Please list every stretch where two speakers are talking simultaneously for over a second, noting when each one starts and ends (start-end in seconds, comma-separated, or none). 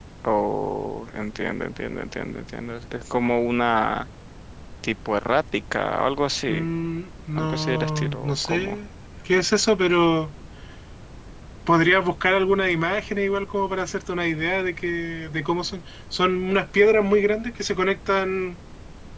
7.4-8.8